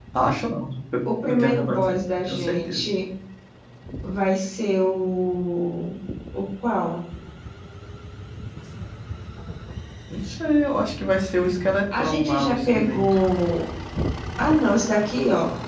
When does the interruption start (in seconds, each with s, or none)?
1.3 s